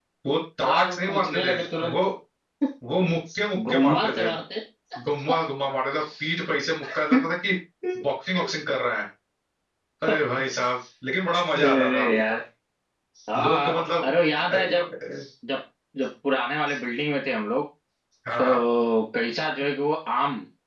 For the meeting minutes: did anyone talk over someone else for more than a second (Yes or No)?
Yes